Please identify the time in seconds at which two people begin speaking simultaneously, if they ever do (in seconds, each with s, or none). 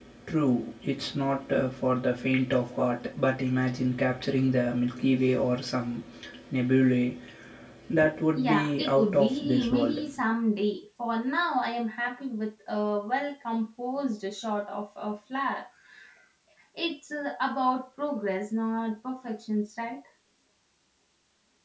8.3 s